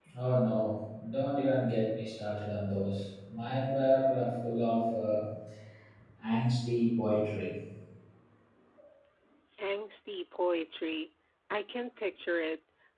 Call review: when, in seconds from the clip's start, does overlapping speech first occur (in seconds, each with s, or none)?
none